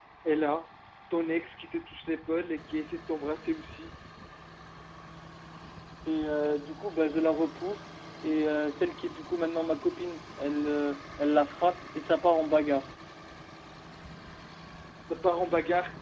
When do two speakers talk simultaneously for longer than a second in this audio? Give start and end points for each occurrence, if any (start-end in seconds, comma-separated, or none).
none